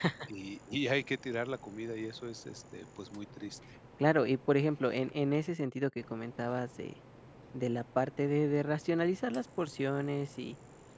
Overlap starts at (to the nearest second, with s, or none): none